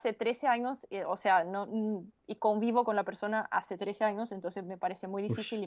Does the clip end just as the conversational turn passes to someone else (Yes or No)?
No